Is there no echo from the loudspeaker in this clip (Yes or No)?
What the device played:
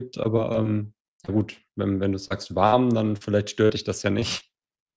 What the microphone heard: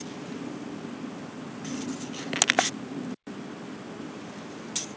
Yes